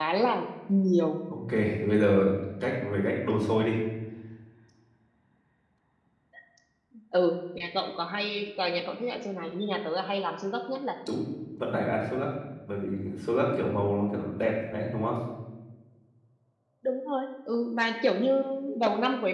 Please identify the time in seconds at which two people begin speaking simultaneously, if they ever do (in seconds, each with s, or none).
none